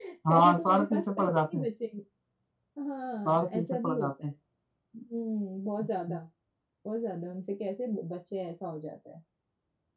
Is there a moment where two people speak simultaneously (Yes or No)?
Yes